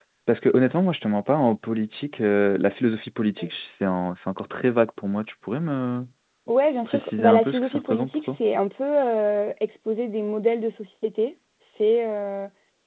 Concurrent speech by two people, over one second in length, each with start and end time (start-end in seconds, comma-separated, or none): 6.9-8.3